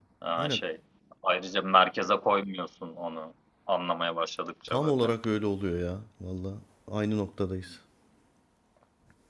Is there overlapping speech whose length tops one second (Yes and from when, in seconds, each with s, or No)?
No